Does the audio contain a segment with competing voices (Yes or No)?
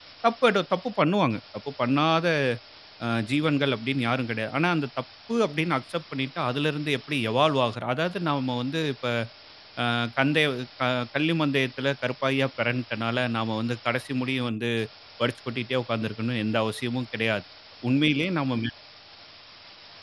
No